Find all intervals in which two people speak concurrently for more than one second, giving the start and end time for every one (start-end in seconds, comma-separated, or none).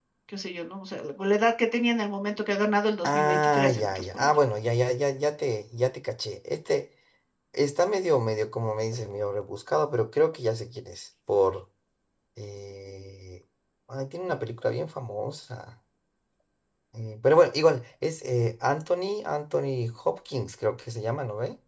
3.0-4.3